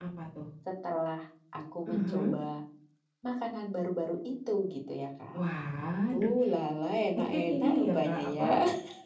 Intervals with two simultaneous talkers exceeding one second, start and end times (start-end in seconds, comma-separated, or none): 7.2-8.5